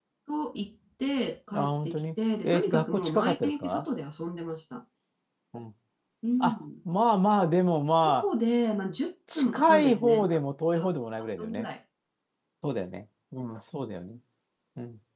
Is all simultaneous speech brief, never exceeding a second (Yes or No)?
No